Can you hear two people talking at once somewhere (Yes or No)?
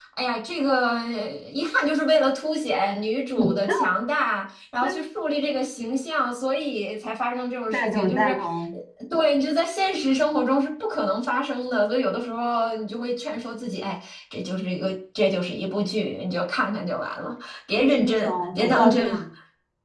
Yes